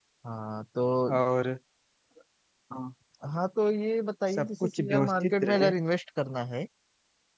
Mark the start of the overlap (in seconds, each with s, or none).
4.3 s